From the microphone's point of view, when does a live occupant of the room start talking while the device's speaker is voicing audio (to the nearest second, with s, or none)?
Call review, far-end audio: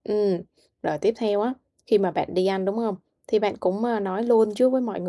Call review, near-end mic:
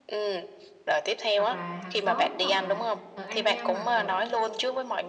1 s